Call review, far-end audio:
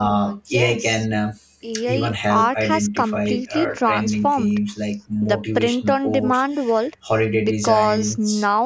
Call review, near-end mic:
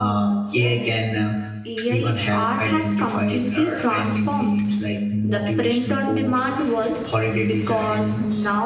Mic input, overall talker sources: echo only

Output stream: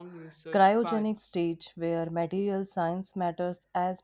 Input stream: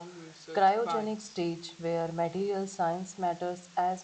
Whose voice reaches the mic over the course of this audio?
echo only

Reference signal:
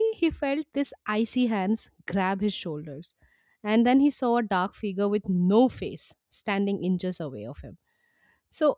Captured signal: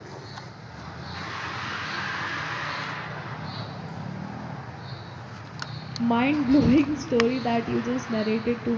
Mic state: user only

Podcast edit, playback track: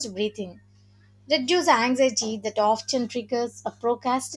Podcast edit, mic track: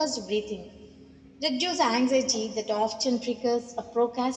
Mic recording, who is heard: echo only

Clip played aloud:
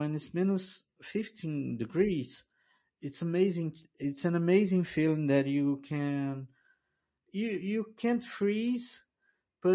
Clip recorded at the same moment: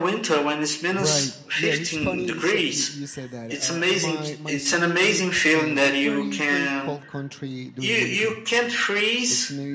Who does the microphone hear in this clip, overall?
both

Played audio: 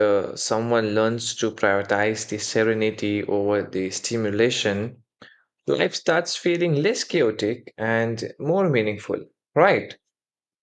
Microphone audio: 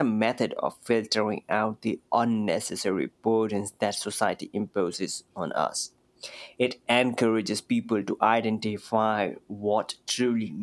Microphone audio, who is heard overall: user only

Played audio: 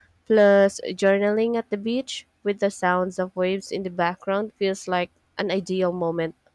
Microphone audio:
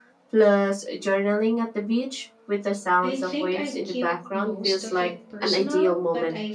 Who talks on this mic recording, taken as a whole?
both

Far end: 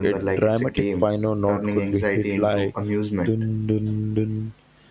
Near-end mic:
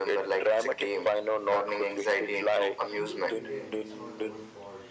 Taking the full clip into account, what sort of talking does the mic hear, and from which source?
both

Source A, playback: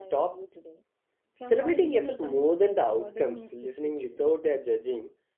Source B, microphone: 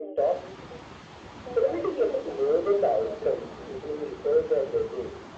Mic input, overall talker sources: echo only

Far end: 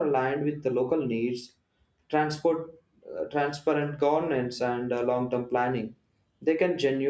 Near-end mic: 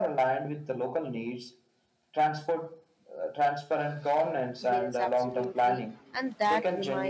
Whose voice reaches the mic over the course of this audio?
both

